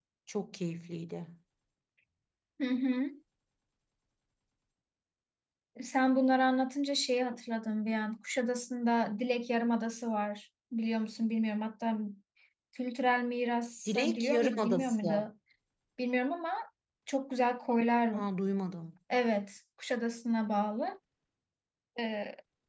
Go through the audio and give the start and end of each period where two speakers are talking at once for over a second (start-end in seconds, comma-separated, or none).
13.8-15.3